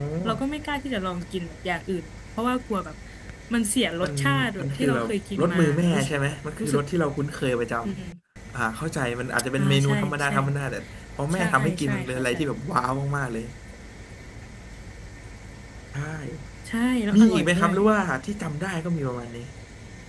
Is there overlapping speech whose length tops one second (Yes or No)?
Yes